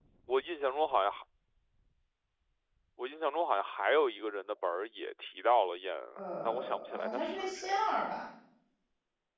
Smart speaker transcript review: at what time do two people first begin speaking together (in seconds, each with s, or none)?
6.2 s